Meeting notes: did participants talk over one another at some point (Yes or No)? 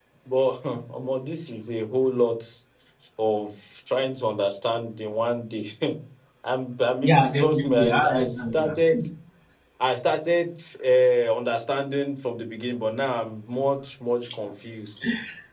Yes